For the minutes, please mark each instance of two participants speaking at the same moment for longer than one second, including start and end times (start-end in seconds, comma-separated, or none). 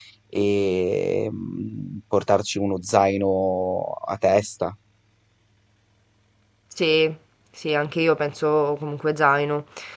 none